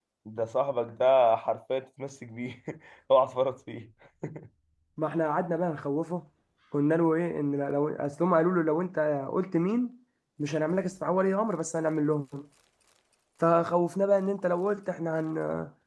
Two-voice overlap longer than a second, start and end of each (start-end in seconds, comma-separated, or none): none